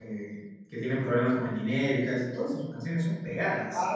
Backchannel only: No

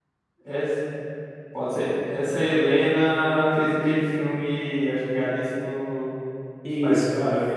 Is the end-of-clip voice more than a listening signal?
Yes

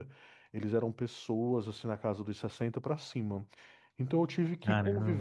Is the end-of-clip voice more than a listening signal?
No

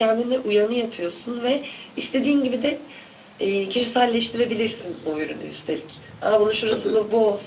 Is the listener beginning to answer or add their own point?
No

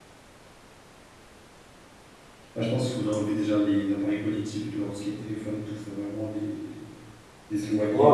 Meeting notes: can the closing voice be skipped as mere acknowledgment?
No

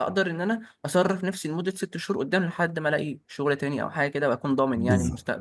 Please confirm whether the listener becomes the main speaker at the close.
Yes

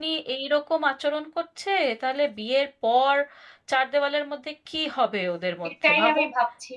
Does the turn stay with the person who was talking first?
No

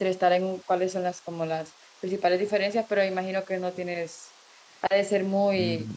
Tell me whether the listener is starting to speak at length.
Yes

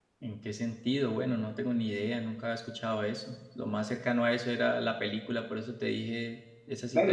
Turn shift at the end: Yes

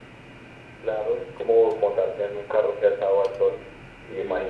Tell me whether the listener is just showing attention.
Yes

